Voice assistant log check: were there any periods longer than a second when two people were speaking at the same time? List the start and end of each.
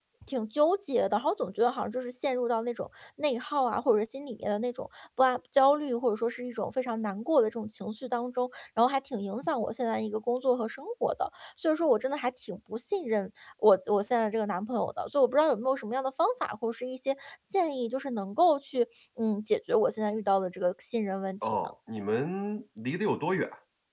none

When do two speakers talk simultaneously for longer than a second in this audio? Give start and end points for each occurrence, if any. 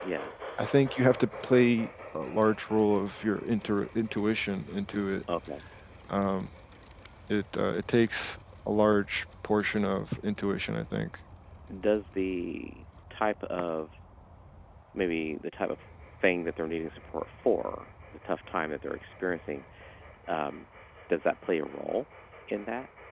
none

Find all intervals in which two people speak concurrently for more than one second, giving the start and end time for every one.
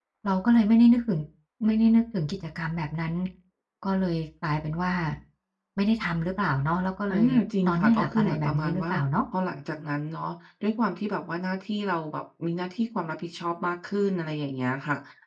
7.7-8.9

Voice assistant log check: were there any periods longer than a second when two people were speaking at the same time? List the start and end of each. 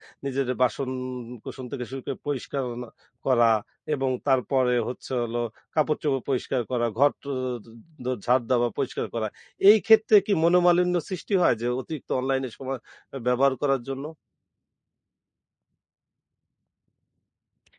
none

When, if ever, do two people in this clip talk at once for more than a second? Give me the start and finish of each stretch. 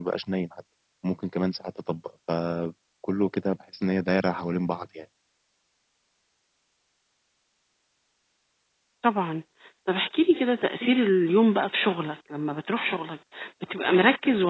none

